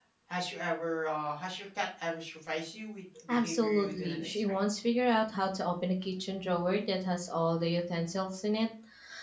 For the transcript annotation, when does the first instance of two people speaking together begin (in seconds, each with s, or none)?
3.3 s